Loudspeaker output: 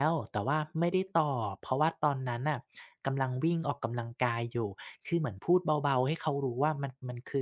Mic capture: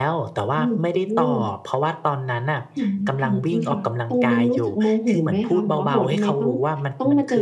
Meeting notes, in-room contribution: present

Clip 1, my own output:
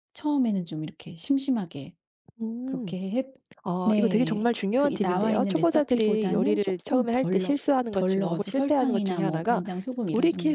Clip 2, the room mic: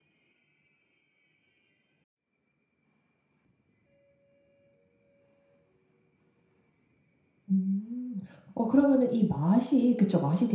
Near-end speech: present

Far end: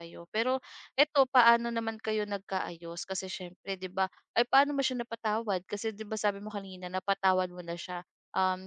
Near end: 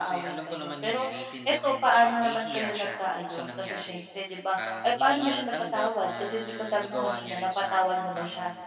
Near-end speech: present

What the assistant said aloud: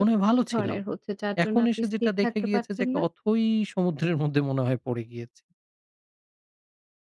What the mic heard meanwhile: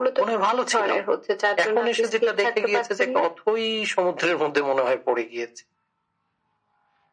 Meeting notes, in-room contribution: none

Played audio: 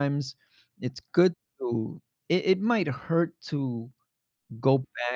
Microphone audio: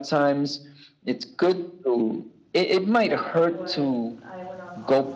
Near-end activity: present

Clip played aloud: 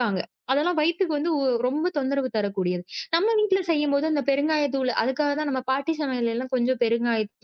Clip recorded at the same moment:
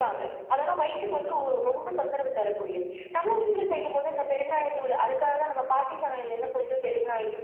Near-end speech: none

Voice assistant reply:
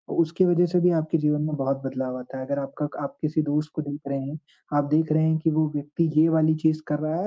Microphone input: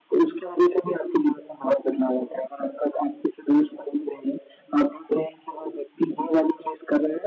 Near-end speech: none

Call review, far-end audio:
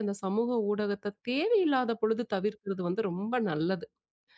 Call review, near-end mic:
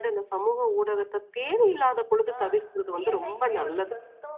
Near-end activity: present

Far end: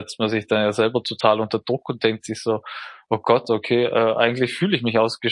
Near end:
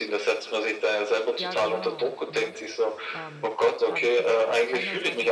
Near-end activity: present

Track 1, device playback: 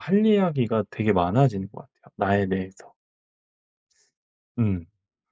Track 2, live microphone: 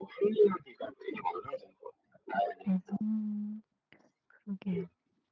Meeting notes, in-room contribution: present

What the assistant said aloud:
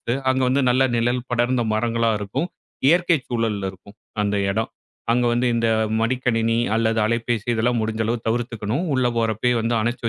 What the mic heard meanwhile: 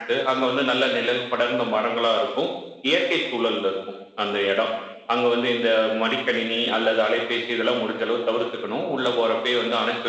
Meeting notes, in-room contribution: none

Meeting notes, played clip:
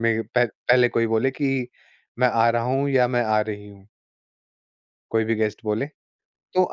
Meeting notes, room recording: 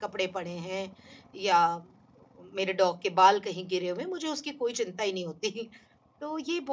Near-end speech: present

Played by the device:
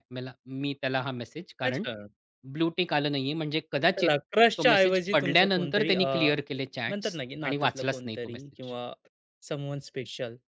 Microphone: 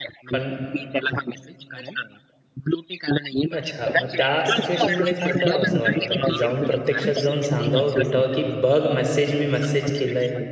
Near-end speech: present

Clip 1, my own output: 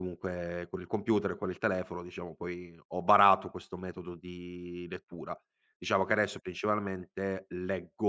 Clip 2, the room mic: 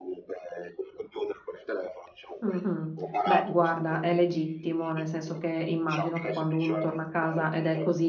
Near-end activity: present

